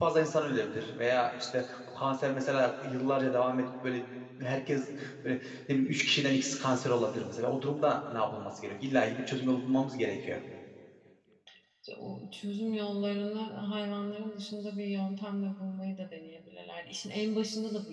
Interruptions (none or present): none